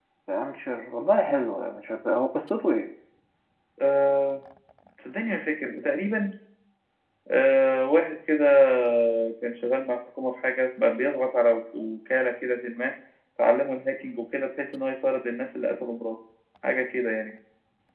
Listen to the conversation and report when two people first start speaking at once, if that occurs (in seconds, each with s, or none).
none